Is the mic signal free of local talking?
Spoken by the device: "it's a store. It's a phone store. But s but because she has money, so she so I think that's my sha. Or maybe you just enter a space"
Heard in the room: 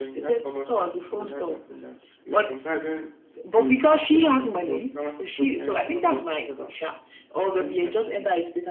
No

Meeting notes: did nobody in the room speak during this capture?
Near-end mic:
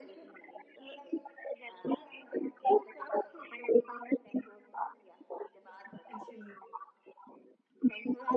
No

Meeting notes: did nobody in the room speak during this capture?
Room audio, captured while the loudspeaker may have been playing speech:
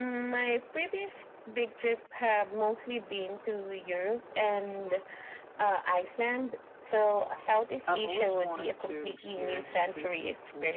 No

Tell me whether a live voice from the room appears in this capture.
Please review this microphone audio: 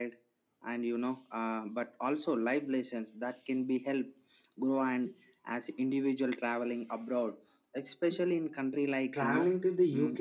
Yes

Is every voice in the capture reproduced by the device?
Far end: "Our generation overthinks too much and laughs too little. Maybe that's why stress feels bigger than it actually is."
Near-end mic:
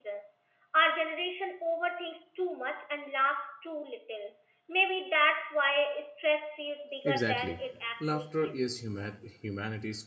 No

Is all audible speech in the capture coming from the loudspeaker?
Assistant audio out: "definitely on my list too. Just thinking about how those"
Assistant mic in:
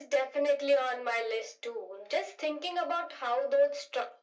Yes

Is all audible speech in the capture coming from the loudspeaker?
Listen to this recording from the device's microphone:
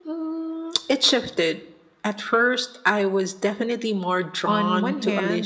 No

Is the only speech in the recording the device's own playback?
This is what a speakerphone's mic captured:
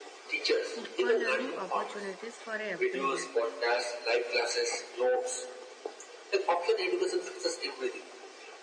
No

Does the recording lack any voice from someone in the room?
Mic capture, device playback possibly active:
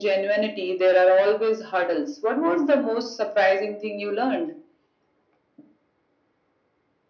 Yes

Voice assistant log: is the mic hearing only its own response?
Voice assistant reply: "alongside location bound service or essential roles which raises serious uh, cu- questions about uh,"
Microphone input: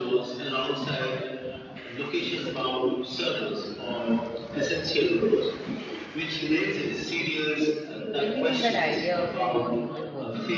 No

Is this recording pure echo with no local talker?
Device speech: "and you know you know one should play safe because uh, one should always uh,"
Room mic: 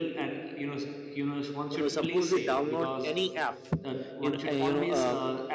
No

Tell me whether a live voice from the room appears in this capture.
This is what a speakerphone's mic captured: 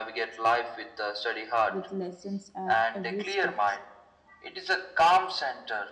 Yes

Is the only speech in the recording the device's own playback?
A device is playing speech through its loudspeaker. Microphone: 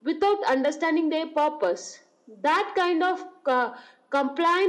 Yes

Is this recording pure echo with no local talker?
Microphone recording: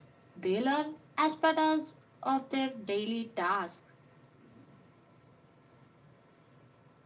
Yes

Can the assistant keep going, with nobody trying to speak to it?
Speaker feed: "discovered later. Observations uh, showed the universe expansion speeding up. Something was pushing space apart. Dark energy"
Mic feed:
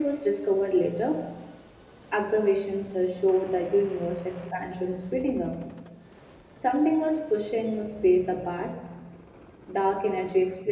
Yes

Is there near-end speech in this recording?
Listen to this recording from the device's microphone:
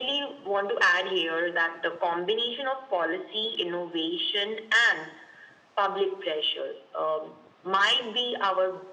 No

